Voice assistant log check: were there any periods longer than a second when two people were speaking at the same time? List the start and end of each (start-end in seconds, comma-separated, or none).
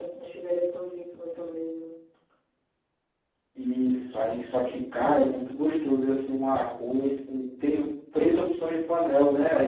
none